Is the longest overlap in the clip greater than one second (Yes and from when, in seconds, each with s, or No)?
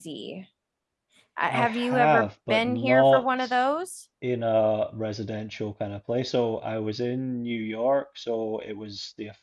Yes, from 1.5 s